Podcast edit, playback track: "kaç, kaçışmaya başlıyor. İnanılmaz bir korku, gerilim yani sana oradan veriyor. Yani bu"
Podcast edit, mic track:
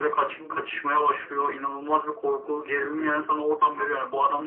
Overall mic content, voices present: both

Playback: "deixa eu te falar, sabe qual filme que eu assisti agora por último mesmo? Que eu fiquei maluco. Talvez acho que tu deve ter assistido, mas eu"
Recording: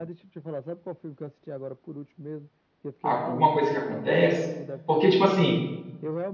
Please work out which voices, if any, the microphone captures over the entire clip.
both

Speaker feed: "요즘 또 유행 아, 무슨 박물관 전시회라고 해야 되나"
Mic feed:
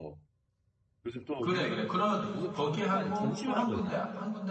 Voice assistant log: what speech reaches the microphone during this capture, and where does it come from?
both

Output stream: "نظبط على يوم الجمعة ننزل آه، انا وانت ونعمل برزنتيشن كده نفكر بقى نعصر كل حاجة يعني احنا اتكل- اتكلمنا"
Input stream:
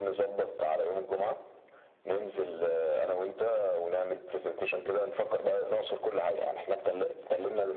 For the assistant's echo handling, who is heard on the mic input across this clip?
echo only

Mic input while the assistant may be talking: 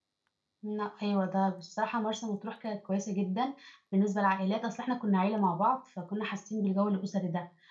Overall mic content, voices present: user only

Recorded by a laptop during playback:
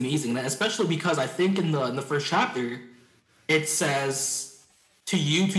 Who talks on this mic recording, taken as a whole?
echo only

